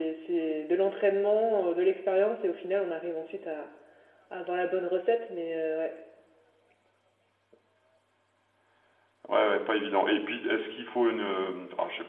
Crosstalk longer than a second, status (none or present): none